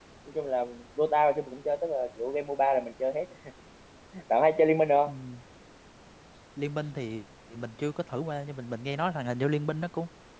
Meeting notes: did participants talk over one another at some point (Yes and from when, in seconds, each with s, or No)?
No